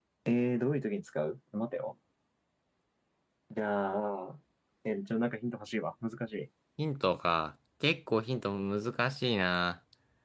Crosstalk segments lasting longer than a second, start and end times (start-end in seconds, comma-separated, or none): none